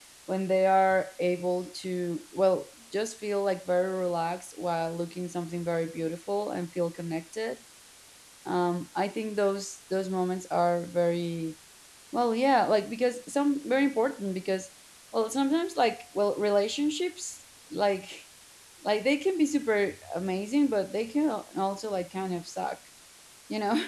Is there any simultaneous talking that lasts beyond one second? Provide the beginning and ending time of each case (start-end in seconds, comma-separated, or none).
none